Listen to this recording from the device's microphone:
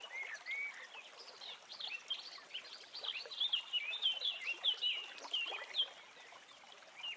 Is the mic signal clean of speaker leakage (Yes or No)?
Yes